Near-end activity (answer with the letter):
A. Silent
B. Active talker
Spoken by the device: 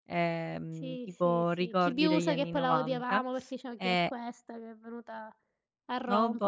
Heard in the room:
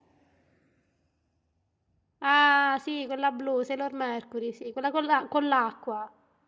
B